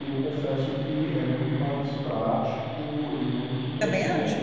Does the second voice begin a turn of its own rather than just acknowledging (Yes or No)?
No